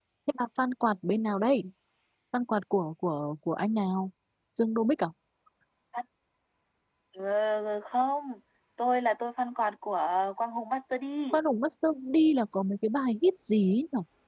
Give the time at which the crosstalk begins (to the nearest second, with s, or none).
none